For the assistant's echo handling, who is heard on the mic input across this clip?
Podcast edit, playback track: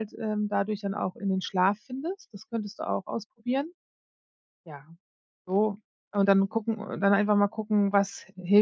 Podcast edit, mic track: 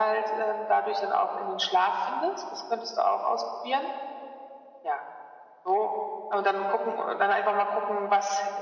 echo only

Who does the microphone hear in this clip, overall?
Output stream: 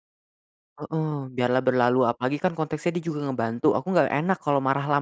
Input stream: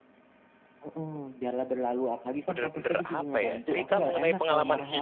both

